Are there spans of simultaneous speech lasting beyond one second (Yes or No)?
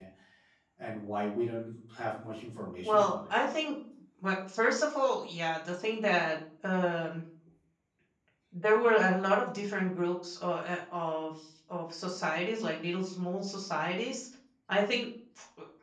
No